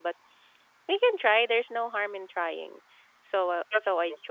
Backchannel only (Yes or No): Yes